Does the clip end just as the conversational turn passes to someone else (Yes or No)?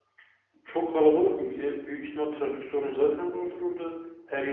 No